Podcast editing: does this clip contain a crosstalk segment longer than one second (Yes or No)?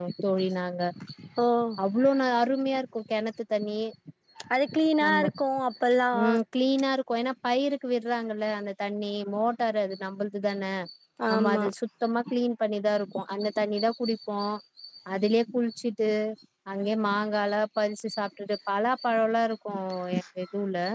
No